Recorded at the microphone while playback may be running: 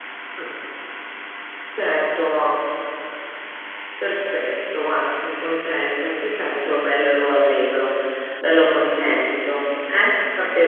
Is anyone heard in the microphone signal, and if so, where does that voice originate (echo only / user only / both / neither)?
user only